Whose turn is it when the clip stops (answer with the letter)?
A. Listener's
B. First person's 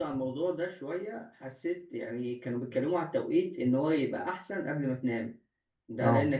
B